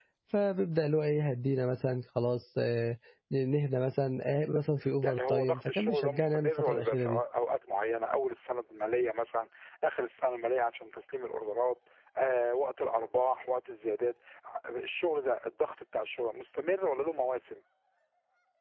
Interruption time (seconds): 5.0 s

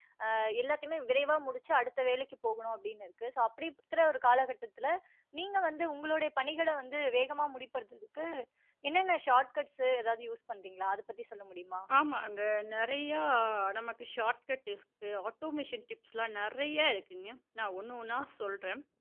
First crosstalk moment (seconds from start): none

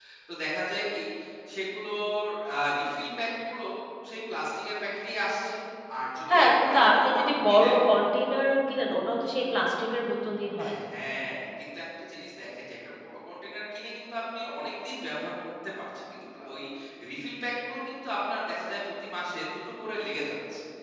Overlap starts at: 6.3 s

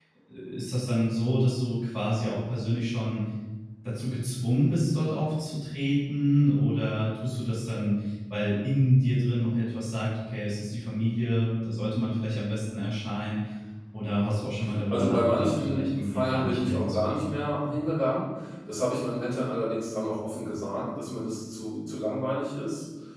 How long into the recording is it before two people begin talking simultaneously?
14.9 s

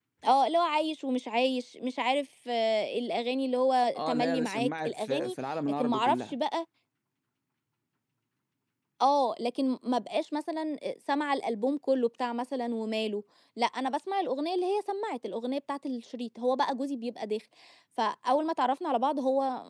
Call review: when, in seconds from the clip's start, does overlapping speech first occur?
4.0 s

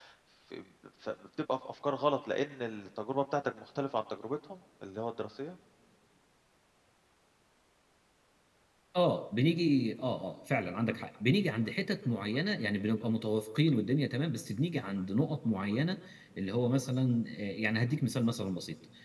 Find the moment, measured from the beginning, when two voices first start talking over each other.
none

